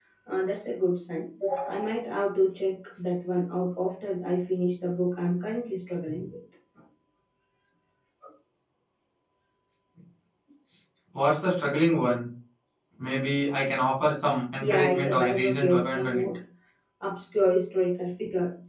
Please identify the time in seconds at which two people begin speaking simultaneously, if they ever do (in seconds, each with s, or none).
14.6 s